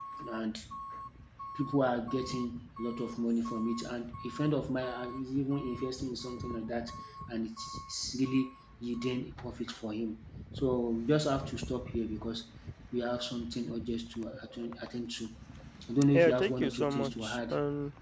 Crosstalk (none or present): present